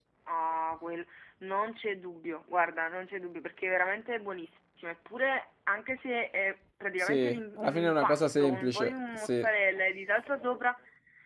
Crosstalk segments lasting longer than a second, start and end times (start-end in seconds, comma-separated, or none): 7.0-9.5